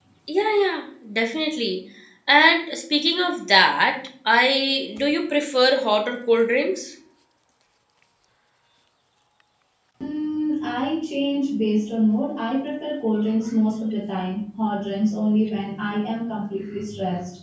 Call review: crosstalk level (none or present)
none